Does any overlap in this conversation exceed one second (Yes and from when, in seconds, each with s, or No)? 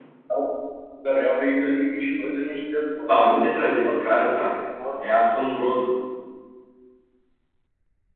Yes, from 3.1 s